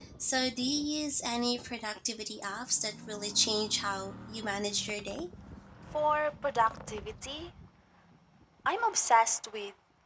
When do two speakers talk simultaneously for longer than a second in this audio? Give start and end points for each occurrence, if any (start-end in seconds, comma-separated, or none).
none